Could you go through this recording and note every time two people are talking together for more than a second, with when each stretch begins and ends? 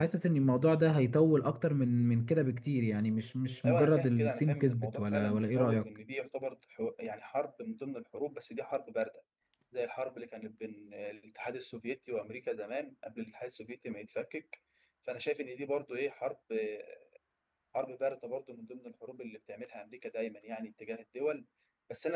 3.6-5.9

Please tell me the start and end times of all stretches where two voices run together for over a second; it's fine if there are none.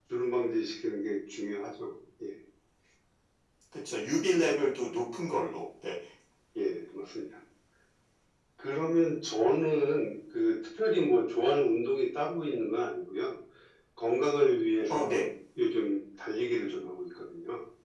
none

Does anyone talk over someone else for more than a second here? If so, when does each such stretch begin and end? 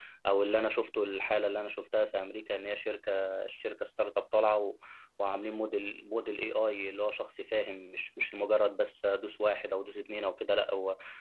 none

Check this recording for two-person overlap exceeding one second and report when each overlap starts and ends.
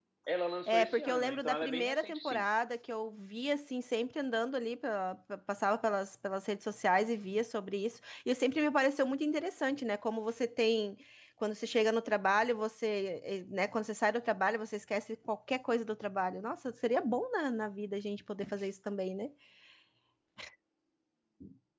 0.7-2.4

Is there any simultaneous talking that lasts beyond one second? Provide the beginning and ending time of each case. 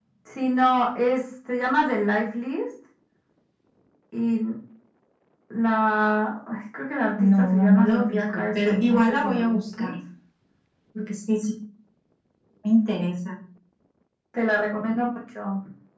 7.2-9.9

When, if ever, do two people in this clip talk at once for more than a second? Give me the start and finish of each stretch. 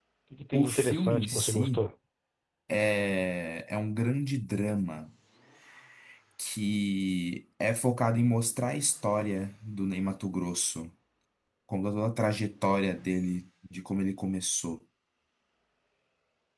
0.5-1.8

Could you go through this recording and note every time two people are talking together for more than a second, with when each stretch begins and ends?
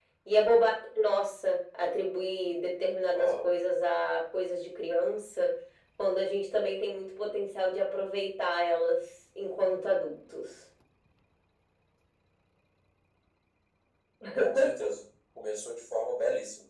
none

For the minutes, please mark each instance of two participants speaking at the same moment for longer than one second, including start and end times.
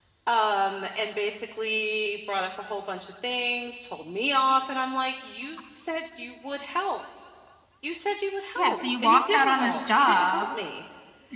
8.6-10.4

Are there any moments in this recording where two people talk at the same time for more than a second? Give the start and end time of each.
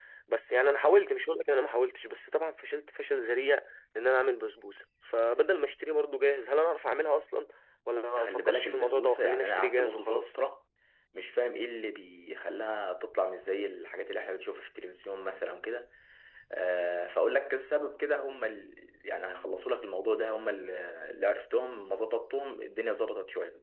8.2-10.4

